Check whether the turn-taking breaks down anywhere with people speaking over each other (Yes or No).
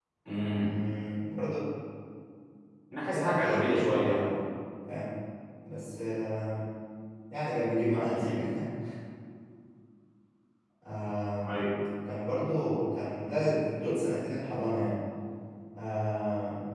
Yes